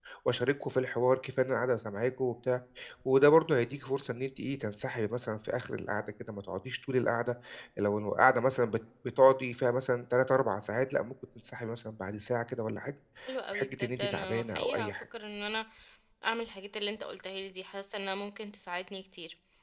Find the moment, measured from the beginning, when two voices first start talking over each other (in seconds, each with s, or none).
13.5 s